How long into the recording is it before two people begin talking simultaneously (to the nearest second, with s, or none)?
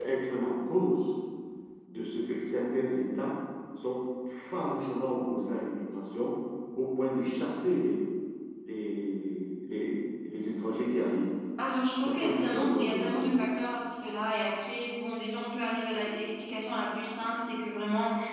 12 s